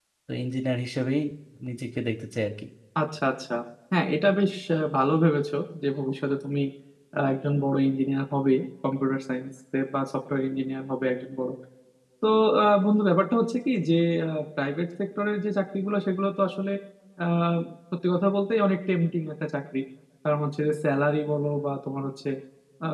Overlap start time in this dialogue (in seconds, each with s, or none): none